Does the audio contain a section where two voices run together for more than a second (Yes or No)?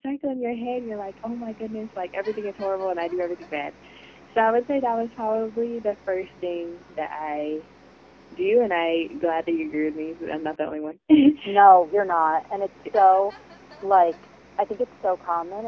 No